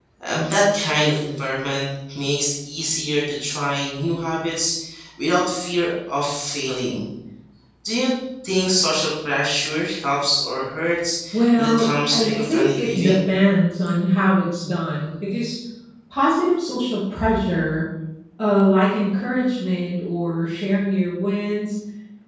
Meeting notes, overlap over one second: present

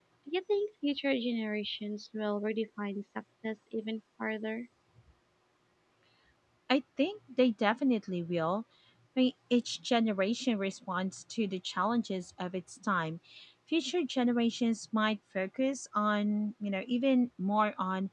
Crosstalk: none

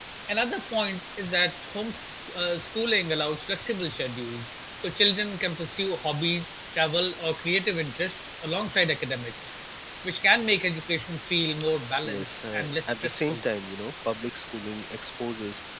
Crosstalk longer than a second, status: present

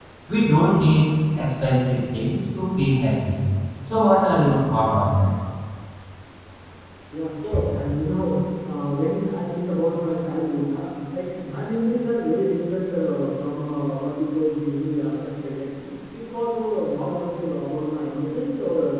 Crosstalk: none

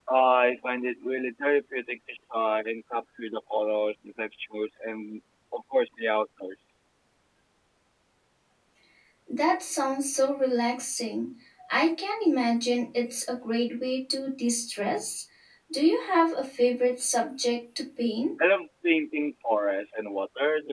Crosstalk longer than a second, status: none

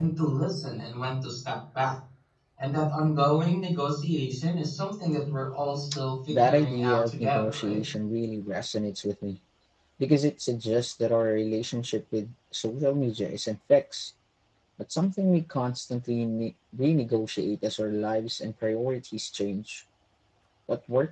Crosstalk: present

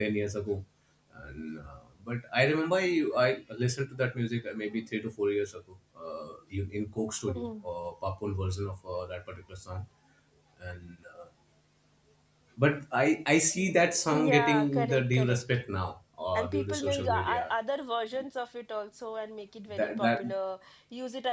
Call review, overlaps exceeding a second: present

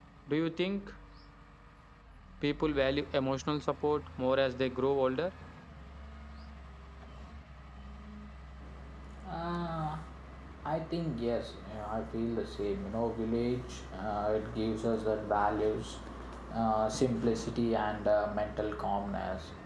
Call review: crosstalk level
none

